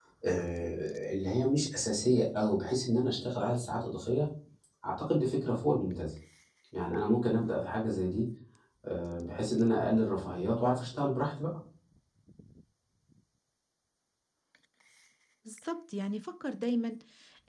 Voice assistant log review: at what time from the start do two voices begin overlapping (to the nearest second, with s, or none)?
none